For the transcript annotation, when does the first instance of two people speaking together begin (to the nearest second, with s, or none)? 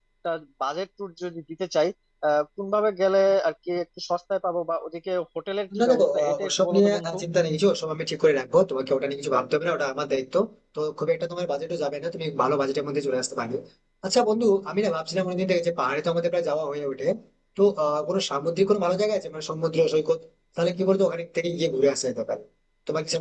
6 s